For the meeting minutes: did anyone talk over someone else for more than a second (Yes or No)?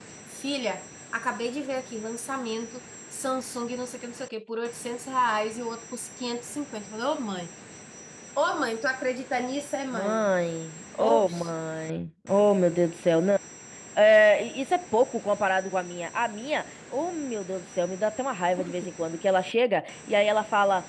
No